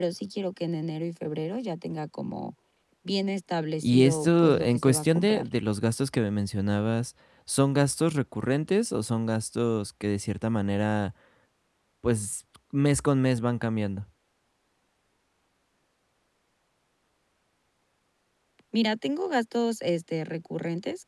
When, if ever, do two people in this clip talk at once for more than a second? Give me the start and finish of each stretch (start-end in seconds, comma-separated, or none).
3.8-5.5